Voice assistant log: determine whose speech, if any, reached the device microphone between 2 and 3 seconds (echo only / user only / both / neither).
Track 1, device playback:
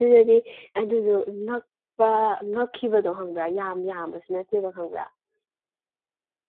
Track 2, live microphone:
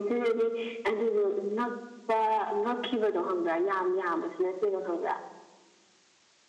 echo only